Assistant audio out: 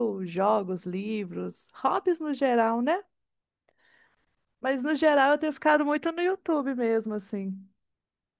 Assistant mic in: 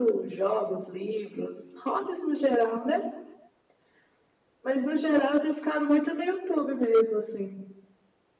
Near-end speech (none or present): none